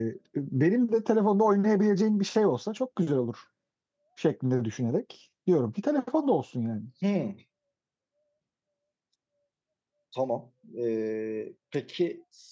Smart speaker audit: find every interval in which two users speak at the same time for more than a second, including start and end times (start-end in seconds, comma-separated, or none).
none